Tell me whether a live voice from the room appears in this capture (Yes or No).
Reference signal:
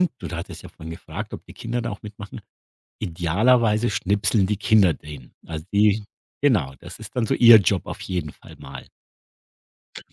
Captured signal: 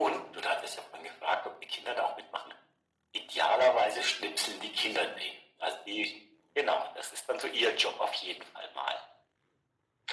No